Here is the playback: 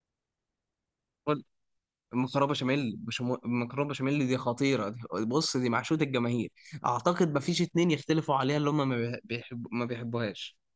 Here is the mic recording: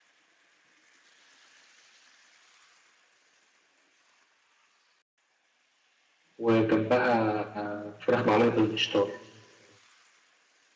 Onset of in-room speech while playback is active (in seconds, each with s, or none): 6.4 s